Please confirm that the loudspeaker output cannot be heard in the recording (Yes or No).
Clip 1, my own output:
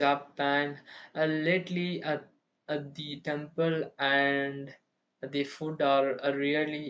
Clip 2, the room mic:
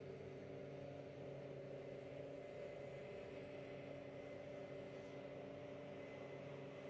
Yes